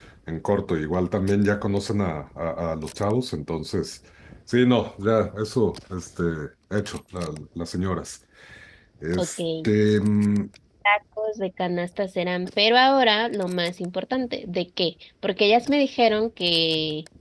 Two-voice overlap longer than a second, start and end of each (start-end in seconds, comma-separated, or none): none